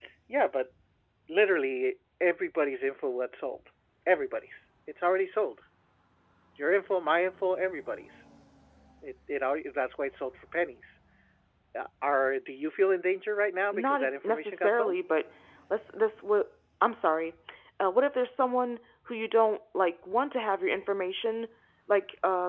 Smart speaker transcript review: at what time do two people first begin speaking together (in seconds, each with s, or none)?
13.7 s